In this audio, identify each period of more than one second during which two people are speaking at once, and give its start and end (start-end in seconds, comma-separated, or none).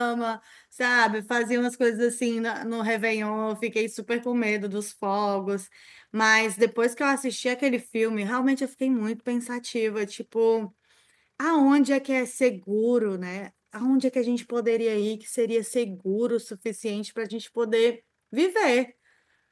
none